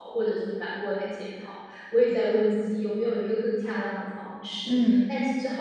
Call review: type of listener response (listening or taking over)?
listening